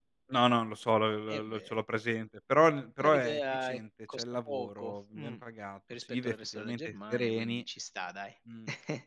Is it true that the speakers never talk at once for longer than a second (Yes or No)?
No